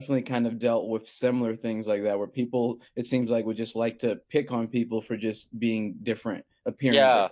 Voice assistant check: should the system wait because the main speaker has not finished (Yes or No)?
No